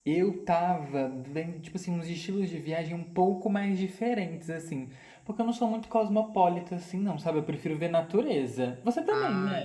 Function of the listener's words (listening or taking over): taking over